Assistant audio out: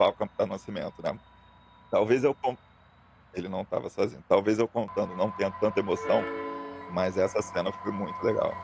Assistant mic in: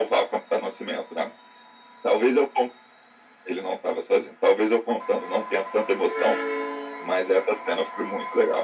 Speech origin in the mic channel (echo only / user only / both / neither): echo only